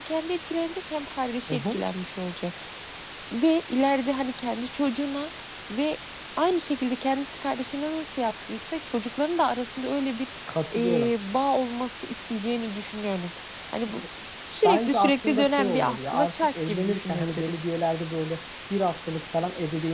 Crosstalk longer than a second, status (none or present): present